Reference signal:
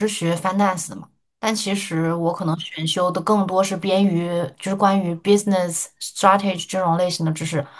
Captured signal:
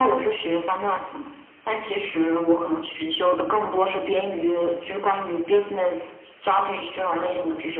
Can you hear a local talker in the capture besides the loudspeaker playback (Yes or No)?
No